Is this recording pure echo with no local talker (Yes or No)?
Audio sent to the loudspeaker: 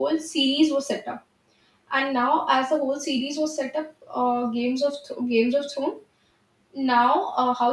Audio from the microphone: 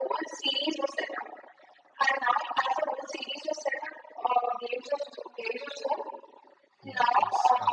No